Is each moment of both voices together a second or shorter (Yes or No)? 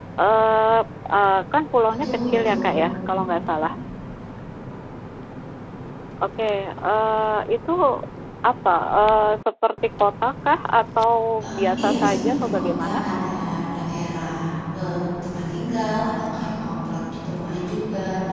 No